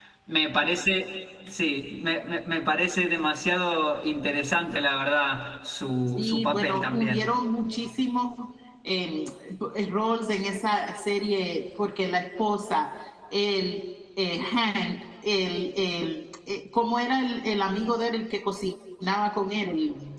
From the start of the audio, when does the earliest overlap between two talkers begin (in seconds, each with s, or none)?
6.2 s